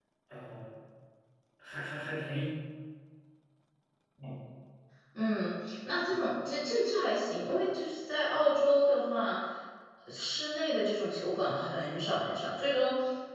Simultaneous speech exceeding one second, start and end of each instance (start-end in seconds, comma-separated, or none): none